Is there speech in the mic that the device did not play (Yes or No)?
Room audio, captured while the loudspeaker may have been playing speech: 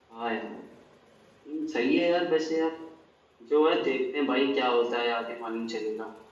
Yes